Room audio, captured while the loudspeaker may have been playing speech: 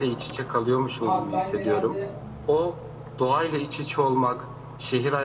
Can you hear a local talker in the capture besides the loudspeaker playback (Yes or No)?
Yes